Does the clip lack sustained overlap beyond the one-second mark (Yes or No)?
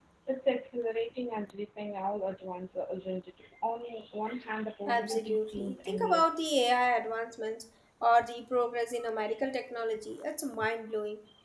No